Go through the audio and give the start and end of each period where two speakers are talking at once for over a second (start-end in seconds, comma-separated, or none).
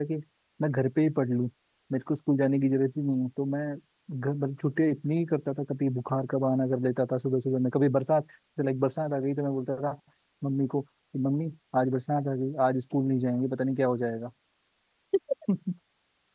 none